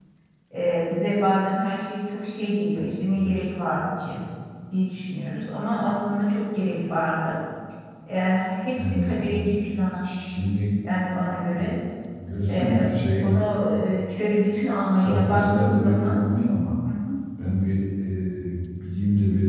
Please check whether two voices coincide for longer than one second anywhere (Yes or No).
Yes